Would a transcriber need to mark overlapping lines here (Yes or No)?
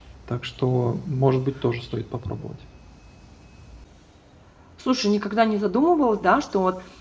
No